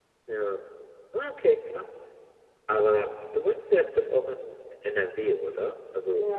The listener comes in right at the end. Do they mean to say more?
Yes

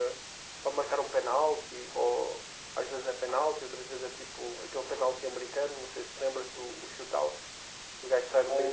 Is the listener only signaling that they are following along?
No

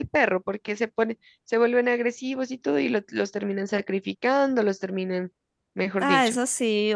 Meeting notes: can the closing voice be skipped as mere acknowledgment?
No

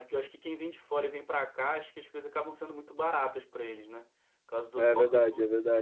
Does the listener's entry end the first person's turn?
Yes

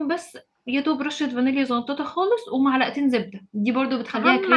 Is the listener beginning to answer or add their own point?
Yes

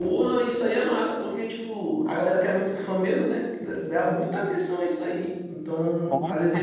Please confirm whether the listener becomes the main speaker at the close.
No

